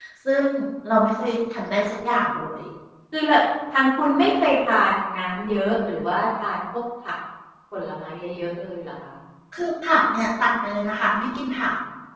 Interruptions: none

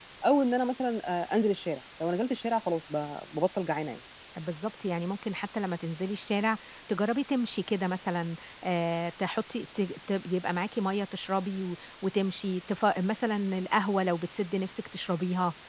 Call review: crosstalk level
none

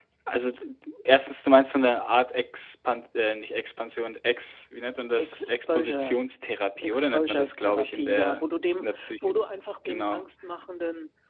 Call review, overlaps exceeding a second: present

